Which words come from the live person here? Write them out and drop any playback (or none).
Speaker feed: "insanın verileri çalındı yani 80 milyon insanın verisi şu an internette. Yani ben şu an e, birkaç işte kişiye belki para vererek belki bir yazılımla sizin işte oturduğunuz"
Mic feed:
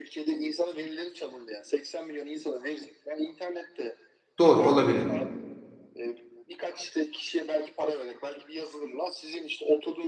Doğru olabilir.